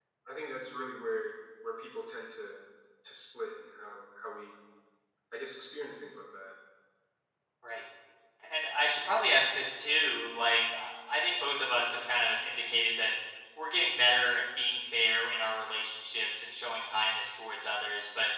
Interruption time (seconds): none

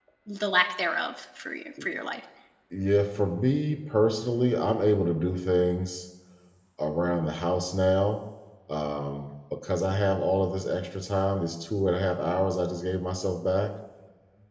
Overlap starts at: none

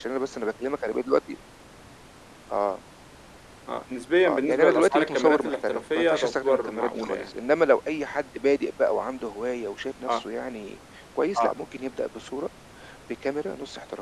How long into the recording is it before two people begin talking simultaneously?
4.2 s

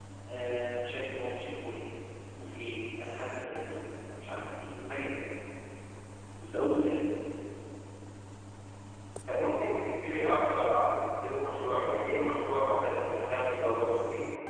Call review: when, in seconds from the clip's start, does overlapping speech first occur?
none

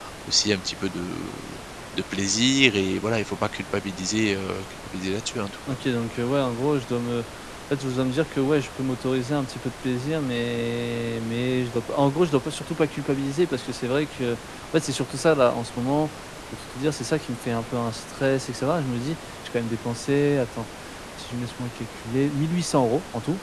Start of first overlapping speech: none

